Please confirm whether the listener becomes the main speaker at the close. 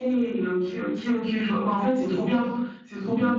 No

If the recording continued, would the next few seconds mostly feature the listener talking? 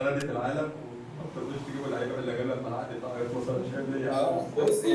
Yes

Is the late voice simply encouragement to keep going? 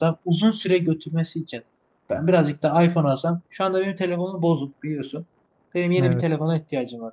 Yes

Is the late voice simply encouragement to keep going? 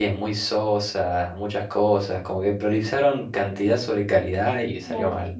No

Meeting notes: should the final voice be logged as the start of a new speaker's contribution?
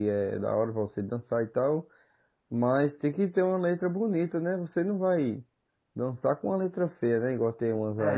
Yes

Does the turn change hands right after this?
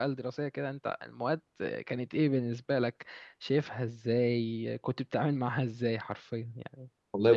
Yes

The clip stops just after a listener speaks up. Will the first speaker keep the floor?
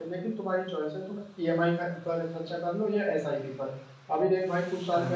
Yes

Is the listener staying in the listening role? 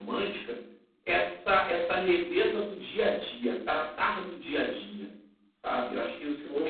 No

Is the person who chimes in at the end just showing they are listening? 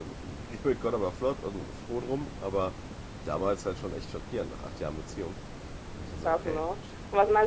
No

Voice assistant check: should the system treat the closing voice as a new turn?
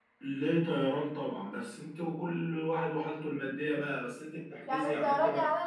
Yes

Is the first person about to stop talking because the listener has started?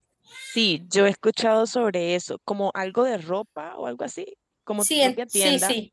Yes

